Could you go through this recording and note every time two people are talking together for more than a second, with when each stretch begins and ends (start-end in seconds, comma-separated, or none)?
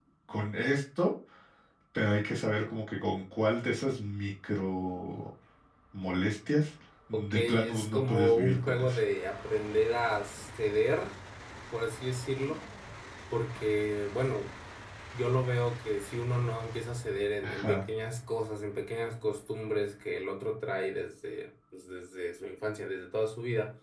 7.1-9.0